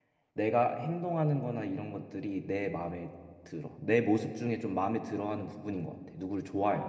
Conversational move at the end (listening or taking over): taking over